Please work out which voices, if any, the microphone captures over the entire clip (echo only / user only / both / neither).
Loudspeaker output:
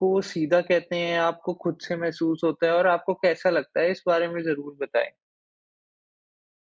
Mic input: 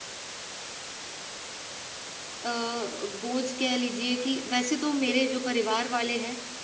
user only